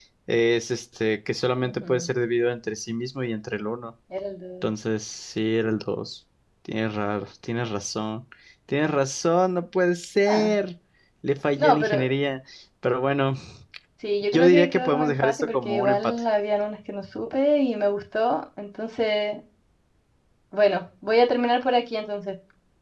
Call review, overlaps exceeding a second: present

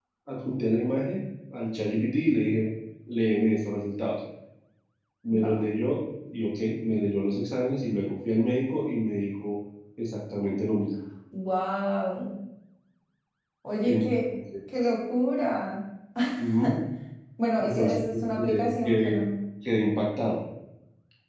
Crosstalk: present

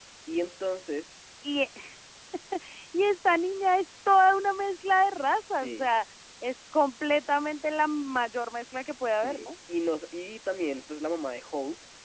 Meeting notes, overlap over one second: none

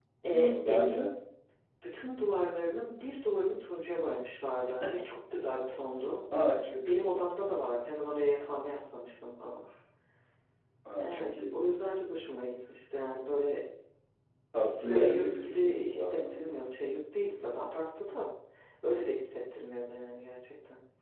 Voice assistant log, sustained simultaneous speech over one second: present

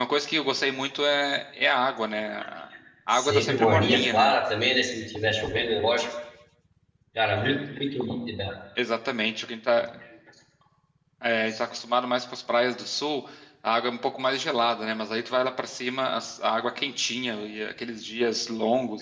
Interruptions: present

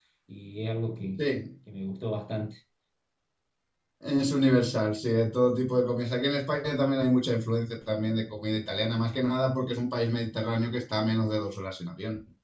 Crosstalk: none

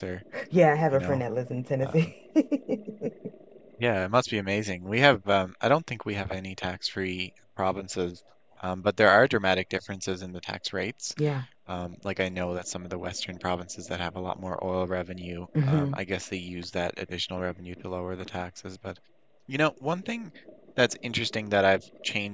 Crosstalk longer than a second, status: none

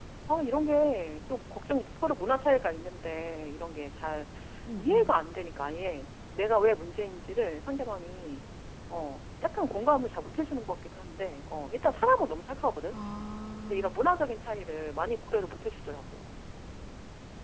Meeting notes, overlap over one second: none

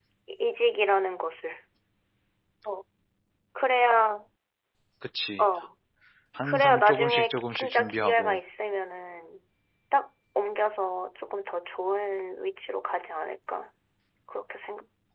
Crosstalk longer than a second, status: present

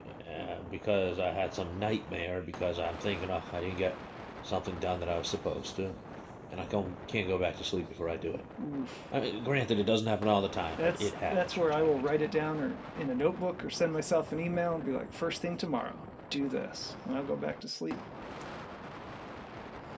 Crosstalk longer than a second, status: present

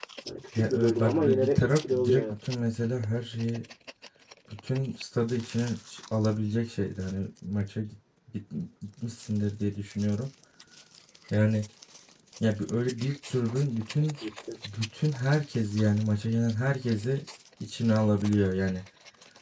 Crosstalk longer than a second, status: present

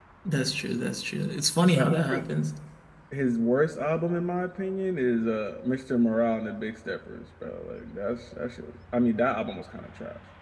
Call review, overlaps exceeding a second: none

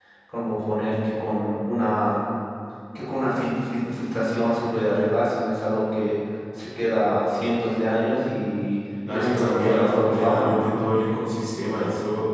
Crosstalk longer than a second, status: present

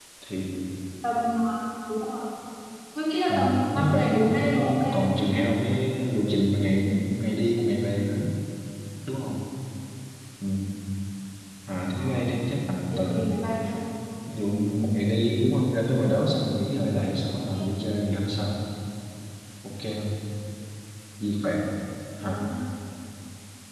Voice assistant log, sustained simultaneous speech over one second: present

